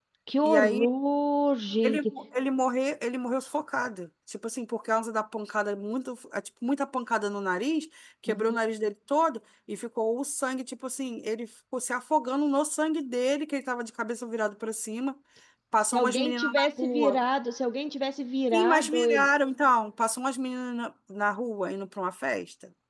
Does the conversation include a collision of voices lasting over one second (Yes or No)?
Yes